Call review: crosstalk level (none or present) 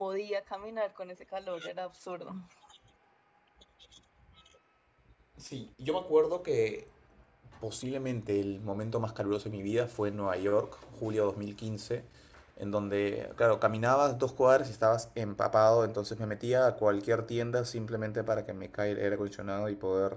none